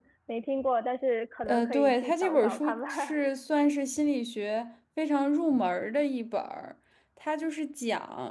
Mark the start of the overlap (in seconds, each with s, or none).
1.5 s